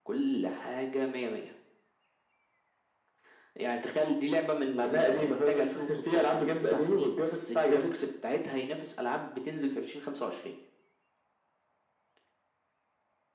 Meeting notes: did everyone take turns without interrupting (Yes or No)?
No